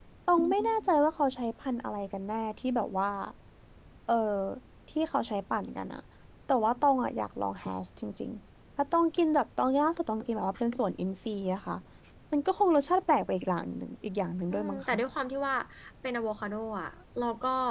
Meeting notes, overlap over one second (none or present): none